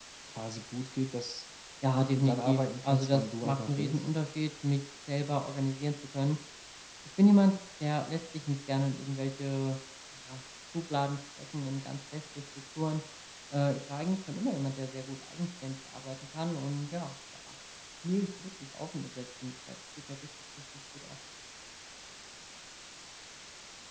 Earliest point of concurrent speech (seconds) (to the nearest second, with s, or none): 2 s